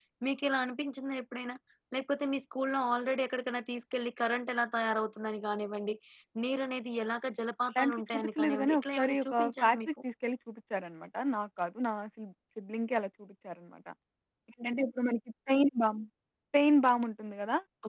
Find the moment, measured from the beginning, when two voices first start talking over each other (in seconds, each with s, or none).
7.8 s